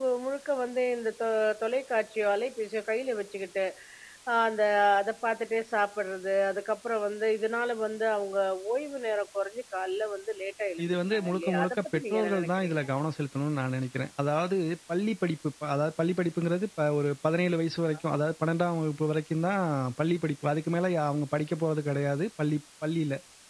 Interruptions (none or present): present